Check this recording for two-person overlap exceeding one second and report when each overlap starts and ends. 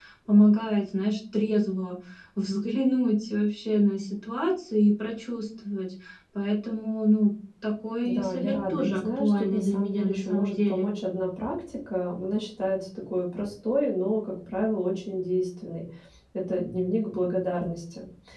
8.0-10.9

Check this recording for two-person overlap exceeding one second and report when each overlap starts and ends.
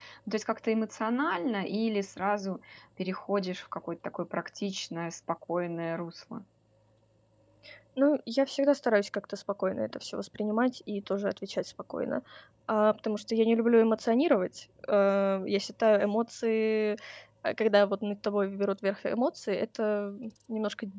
none

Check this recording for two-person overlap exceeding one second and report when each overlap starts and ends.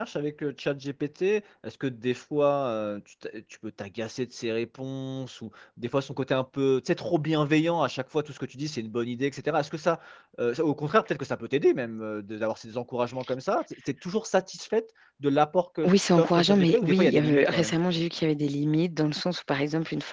15.8-17.8

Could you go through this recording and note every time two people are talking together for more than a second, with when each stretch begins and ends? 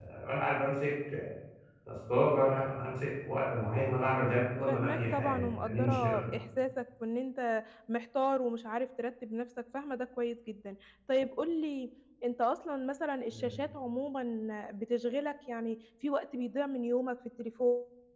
4.7-6.2

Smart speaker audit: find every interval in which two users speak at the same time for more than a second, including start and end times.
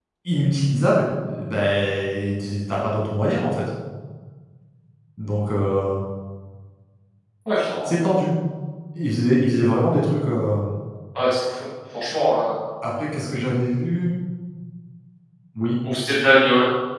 none

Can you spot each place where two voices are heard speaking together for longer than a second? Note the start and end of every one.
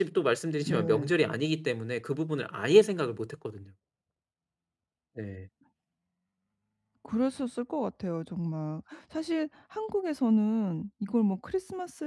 none

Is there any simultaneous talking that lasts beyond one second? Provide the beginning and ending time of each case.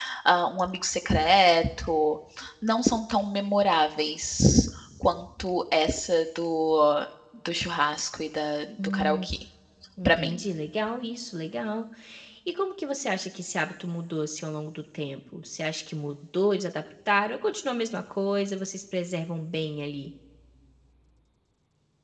none

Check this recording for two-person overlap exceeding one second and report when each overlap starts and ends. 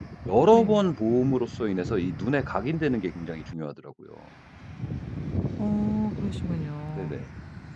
none

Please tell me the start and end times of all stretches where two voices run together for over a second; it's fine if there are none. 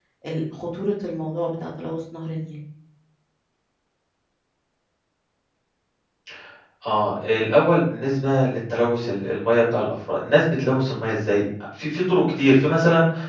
none

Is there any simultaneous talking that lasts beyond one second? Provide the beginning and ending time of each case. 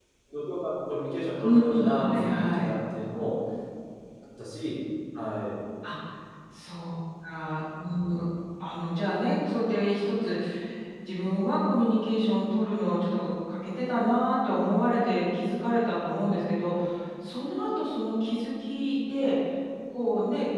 1.4-2.7

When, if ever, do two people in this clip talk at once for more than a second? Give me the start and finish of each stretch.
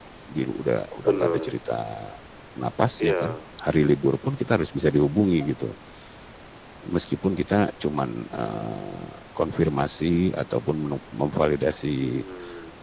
none

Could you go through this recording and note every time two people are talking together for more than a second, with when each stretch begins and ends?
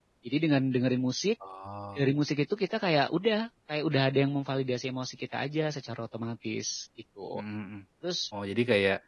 none

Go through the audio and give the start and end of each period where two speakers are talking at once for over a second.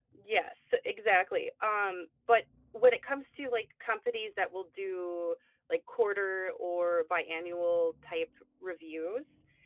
none

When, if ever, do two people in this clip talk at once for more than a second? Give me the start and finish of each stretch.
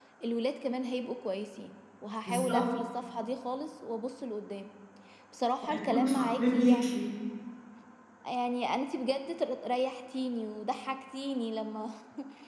5.6-7.1

